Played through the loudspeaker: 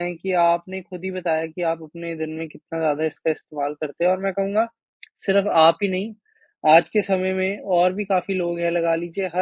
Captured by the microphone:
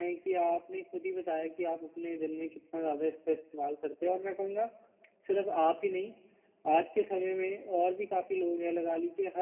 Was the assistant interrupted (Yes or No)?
No